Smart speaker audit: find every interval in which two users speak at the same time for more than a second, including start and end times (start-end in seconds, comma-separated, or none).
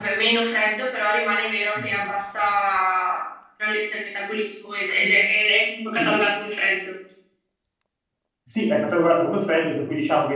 none